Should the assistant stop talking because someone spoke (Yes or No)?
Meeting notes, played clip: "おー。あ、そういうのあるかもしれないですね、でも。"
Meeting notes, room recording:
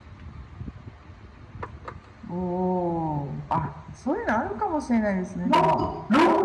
Yes